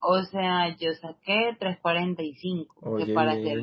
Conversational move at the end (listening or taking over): listening